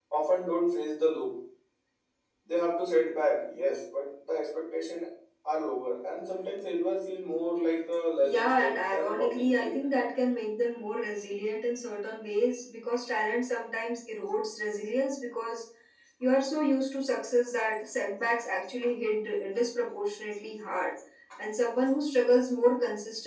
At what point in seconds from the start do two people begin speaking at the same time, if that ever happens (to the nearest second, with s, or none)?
8 s